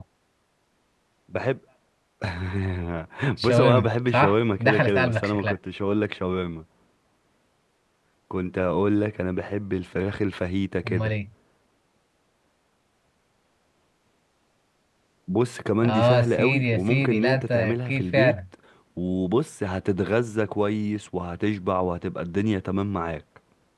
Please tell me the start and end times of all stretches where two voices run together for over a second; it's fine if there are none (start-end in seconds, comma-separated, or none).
3.4-5.6, 15.8-18.3